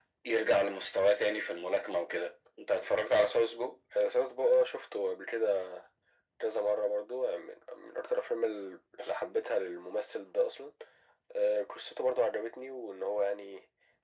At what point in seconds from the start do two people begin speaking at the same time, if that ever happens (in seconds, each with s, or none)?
none